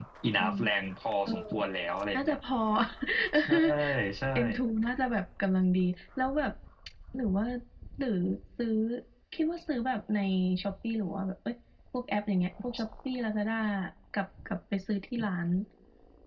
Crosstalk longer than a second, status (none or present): none